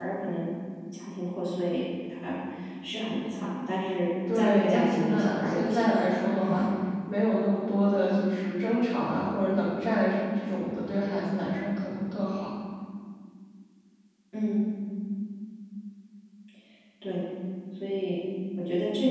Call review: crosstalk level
present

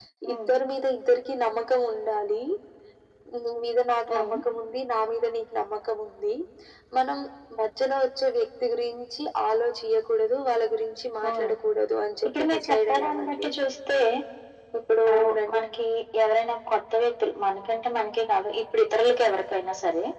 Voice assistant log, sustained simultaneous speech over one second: present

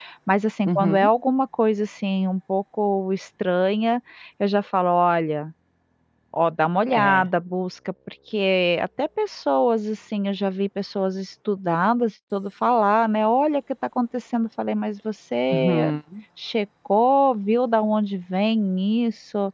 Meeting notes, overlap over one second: none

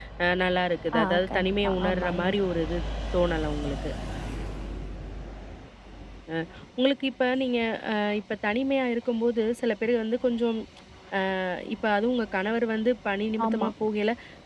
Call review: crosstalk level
present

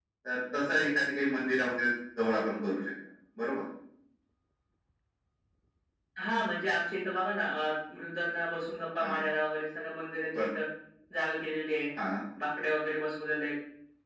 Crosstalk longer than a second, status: none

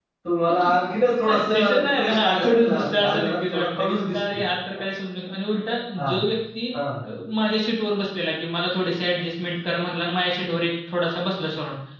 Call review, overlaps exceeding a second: present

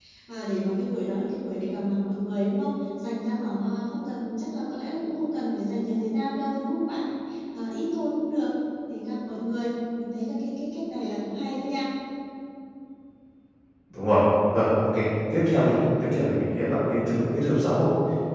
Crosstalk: none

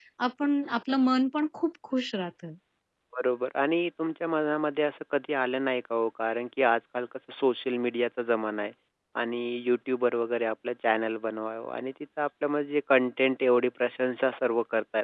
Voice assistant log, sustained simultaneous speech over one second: none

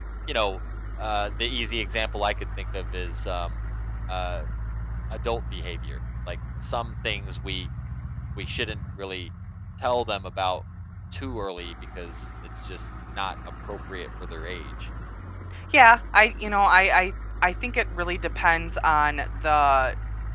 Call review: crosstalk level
none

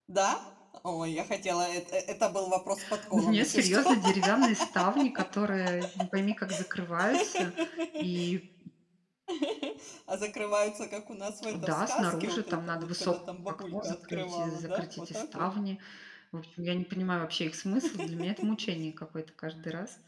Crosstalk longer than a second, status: present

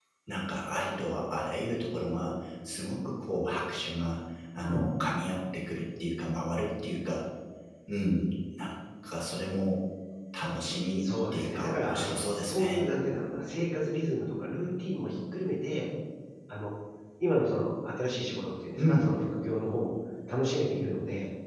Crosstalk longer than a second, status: present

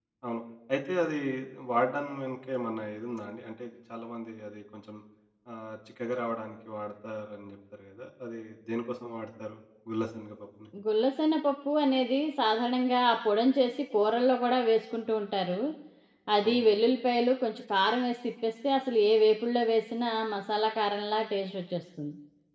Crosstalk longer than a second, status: none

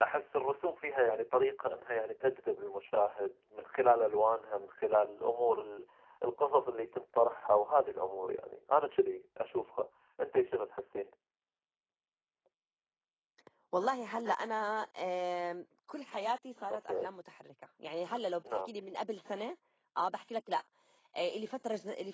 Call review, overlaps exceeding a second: none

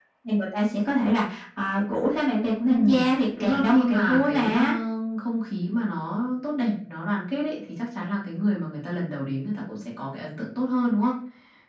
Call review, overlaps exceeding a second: present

